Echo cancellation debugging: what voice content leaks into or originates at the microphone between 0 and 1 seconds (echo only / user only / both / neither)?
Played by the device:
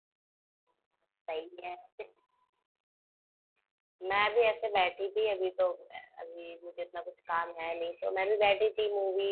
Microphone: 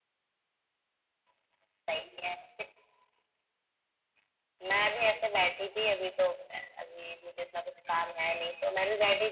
neither